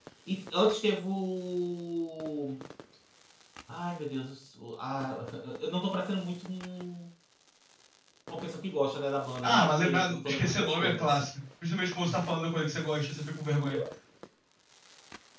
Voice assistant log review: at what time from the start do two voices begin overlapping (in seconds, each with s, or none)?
9.4 s